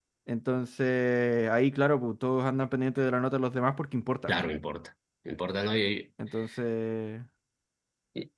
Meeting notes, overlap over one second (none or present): none